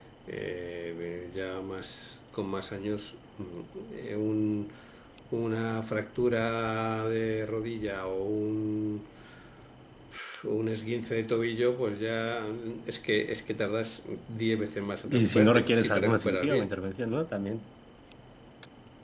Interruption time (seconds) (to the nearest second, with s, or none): 15 s